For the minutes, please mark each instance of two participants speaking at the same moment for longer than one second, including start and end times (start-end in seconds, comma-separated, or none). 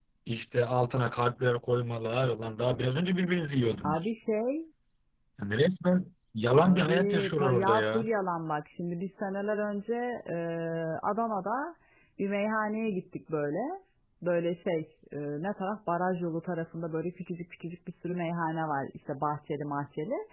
6.6-8.1